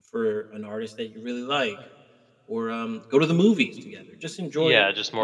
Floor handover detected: Yes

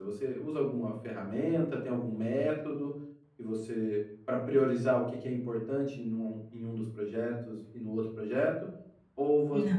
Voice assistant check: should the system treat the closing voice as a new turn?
No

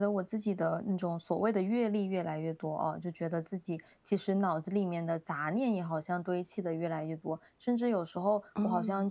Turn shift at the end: No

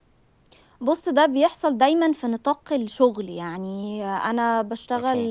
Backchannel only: Yes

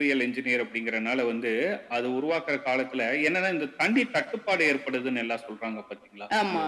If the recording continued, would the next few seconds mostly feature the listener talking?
No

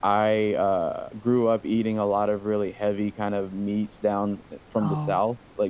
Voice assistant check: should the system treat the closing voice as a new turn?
No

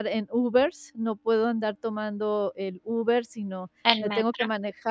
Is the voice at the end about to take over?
No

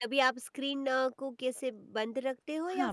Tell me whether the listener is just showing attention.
No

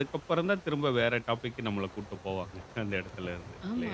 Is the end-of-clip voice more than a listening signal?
Yes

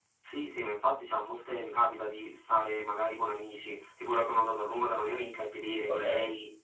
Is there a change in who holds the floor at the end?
No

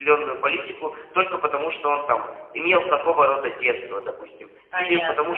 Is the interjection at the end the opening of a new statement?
No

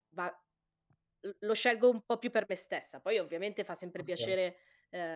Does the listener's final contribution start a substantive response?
No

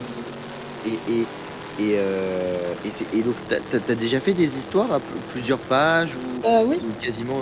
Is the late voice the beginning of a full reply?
No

